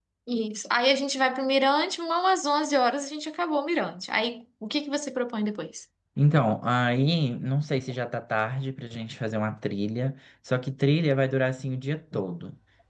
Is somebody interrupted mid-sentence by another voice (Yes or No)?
No